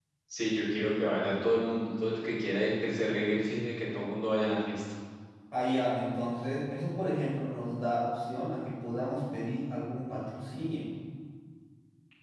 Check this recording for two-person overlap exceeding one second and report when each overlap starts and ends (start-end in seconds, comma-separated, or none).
none